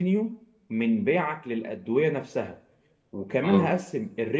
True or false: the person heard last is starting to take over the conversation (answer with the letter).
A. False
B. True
A